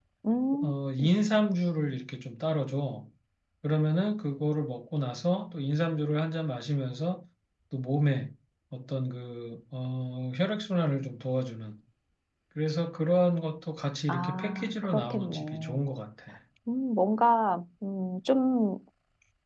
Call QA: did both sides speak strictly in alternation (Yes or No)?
No